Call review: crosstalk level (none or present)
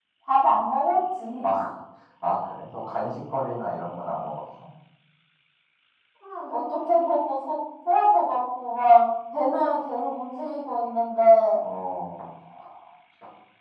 none